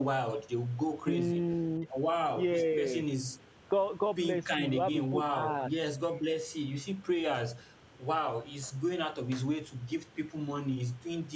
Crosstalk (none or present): present